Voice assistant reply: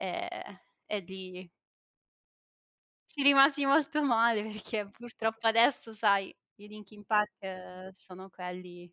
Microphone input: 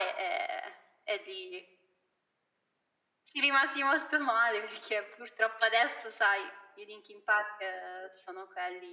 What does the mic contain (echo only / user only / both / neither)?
echo only